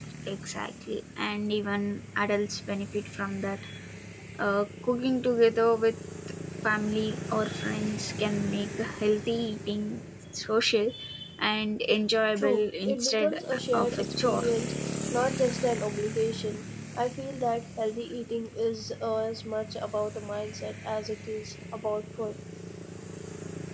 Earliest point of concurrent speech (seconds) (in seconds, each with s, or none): 12.4 s